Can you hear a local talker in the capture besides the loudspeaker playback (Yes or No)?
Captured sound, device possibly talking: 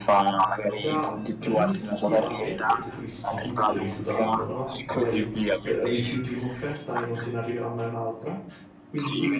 Yes